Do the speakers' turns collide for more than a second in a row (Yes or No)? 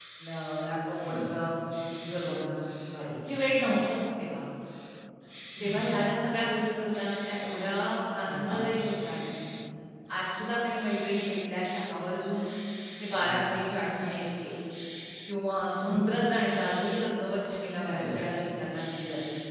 No